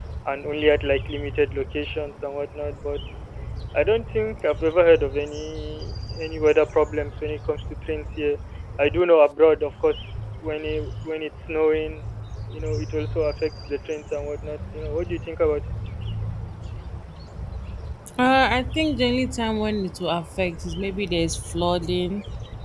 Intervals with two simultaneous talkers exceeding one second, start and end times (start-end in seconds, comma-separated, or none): none